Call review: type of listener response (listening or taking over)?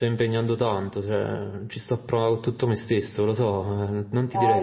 taking over